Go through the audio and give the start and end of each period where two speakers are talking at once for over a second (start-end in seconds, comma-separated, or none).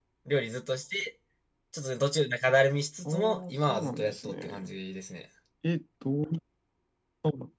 3.0-4.7